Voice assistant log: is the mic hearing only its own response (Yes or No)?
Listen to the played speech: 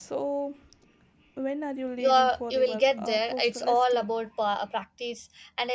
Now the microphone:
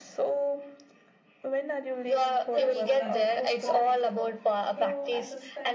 No